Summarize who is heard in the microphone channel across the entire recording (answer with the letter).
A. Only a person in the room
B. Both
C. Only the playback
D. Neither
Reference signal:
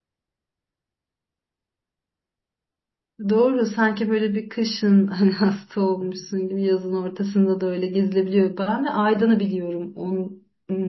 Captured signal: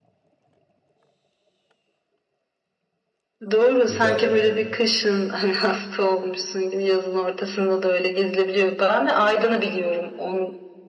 B